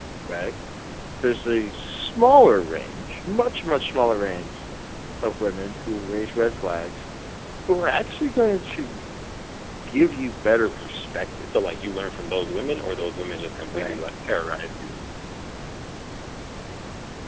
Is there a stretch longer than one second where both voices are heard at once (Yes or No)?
No